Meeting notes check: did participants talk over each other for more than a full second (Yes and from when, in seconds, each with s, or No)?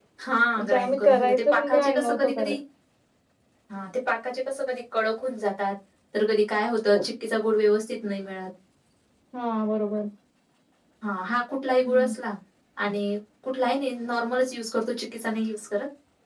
Yes, from 0.6 s